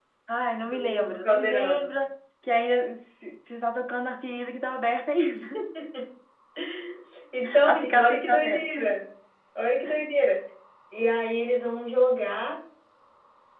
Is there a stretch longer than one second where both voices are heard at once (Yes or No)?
Yes